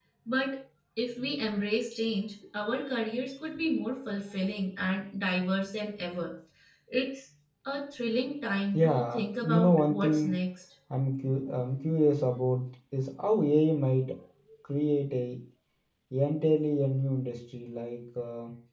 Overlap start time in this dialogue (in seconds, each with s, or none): 8.7 s